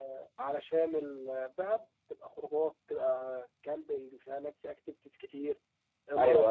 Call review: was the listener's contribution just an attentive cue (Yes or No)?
Yes